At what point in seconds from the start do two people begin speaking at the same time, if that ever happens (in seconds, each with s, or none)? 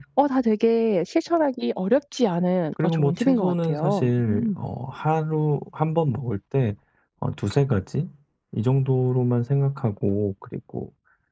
2.8 s